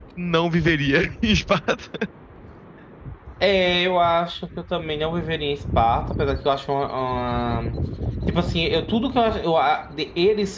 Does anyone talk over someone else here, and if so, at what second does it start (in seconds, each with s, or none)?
none